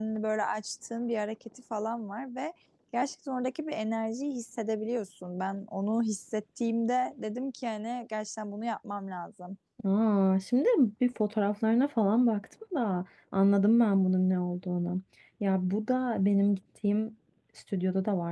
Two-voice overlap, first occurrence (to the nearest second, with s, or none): none